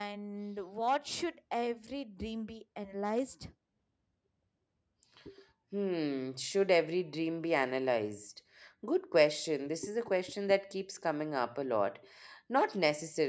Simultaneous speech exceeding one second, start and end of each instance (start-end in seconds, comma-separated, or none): none